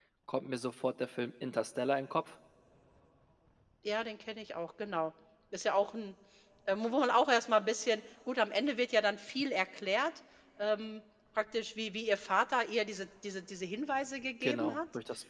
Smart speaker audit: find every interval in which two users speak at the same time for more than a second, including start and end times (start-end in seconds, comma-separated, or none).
none